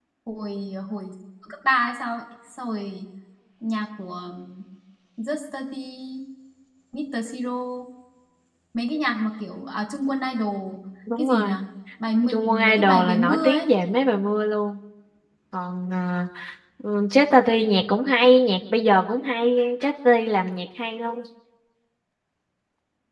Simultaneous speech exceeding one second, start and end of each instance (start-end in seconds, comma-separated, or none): 12.3-13.7